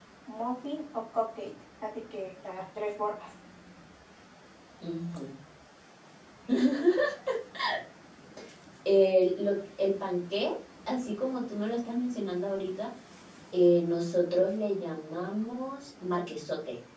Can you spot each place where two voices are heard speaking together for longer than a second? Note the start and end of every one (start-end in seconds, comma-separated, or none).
none